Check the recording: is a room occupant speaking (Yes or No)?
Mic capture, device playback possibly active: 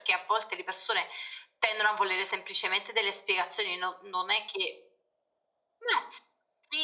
No